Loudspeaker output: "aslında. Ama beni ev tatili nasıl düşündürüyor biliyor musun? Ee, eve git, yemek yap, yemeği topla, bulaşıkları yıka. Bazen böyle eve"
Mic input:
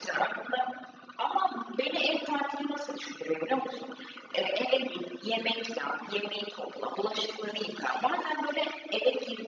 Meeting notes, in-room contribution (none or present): none